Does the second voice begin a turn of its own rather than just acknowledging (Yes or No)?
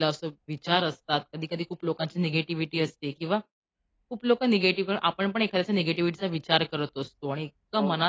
No